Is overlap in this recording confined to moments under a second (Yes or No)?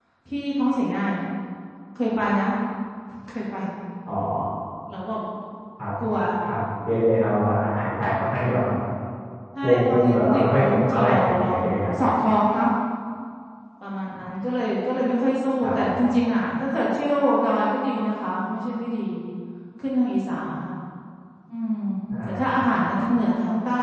No